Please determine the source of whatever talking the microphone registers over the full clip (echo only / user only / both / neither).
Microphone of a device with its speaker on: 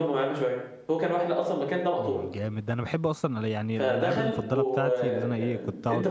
both